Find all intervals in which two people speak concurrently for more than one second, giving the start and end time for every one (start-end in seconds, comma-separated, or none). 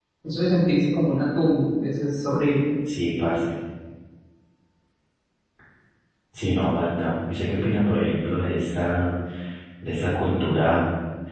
none